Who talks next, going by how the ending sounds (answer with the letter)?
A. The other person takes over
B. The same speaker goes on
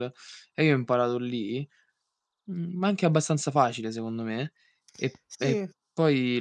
B